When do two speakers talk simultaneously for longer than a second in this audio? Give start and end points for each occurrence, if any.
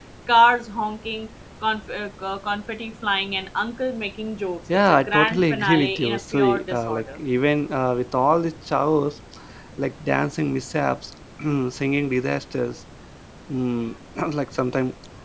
4.7-7.1

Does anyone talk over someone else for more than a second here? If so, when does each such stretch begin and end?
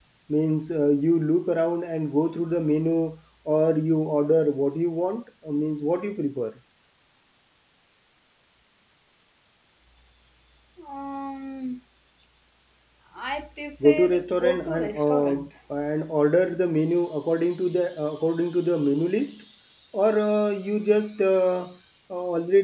13.8-15.3

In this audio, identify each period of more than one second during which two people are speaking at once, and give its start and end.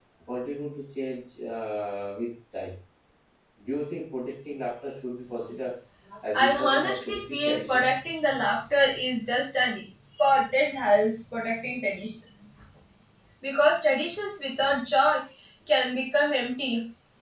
6.3-7.8

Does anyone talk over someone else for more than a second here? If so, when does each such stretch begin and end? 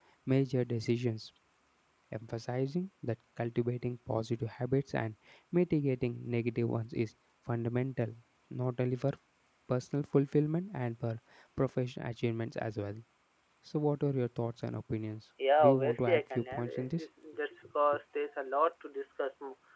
15.6-17.0

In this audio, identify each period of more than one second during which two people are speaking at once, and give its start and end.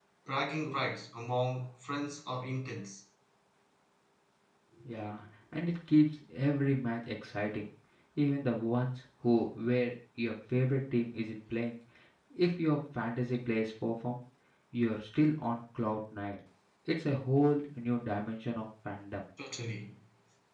none

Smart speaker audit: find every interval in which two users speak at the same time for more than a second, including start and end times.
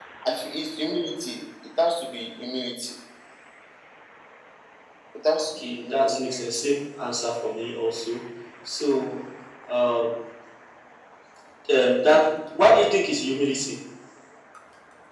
5.4-6.7

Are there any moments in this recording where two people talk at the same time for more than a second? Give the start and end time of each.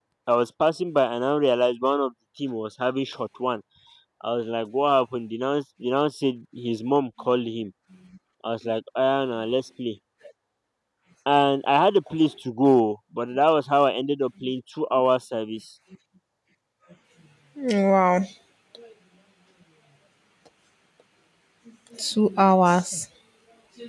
none

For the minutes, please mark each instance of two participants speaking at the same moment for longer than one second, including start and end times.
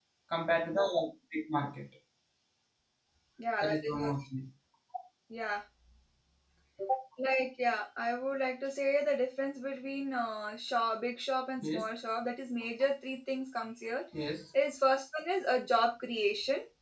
none

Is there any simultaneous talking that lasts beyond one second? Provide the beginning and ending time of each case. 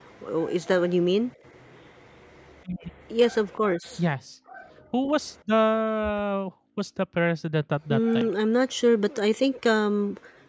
none

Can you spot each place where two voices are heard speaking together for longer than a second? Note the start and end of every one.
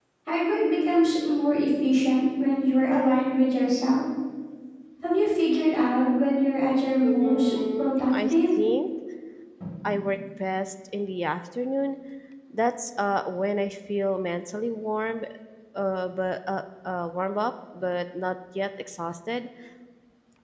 7.0-8.3

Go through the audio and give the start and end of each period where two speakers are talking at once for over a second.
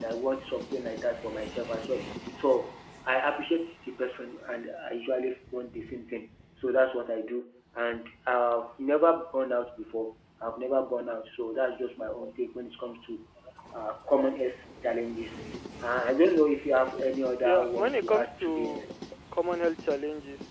17.4-18.9

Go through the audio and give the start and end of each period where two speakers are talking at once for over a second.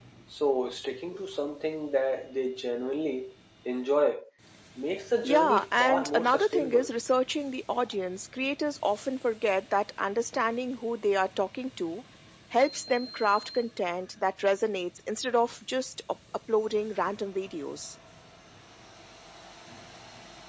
5.2-6.9

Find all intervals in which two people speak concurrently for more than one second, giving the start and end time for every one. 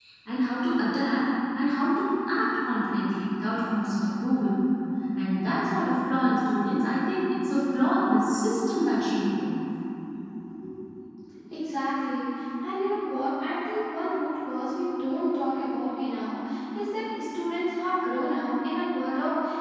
none

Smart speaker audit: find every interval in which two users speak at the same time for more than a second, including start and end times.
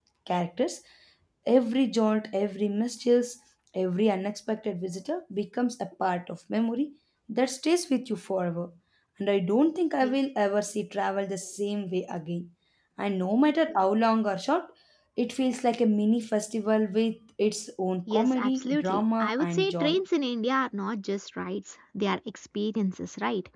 18.1-20.0

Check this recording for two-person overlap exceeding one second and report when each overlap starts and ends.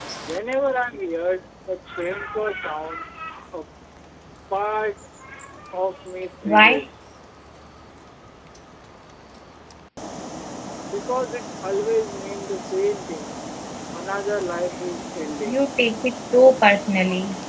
none

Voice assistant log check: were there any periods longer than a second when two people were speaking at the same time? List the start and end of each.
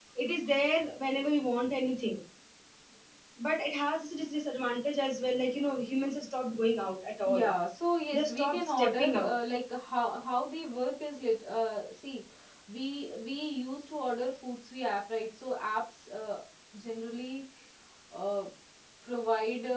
8.1-9.3

